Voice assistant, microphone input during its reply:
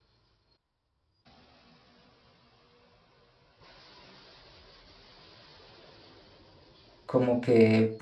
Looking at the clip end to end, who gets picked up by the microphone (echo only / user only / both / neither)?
user only